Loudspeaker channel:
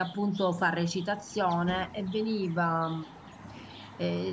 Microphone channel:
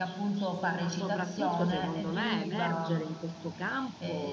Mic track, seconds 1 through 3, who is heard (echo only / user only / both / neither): both